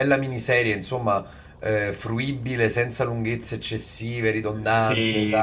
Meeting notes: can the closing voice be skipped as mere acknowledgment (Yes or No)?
No